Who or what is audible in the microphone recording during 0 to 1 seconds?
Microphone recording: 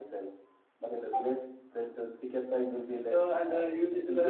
echo only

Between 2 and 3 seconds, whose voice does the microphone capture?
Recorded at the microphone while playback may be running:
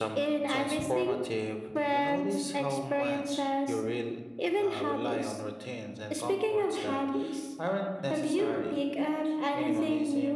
echo only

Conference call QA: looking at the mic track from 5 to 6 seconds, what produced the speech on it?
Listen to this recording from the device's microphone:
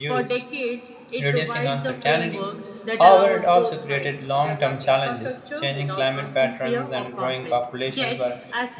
both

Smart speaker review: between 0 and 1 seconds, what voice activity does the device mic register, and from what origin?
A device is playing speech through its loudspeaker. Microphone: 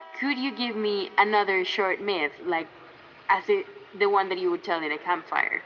echo only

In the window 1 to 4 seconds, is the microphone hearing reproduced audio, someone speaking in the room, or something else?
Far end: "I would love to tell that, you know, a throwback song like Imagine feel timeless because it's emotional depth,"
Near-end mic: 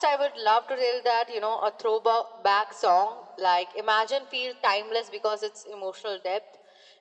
echo only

